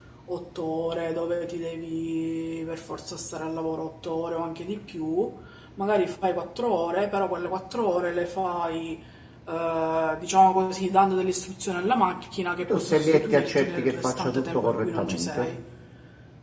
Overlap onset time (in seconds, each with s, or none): 12.7 s